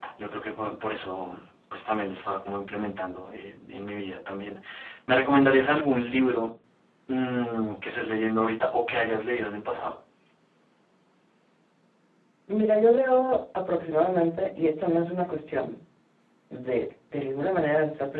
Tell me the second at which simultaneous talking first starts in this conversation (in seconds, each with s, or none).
none